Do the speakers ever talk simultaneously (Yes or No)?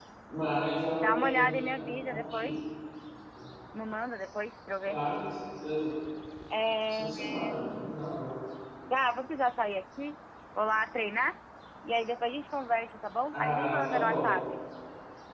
Yes